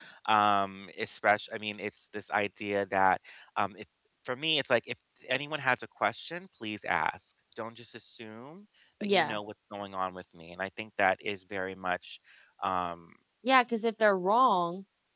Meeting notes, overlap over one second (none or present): none